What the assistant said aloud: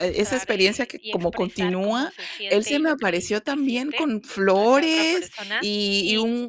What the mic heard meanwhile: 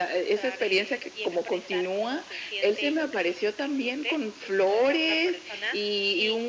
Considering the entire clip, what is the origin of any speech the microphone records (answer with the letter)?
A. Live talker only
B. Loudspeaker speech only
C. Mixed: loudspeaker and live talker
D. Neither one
B